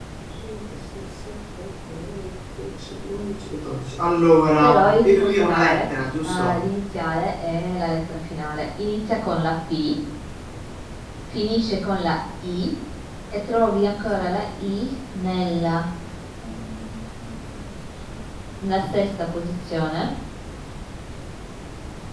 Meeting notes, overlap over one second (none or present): present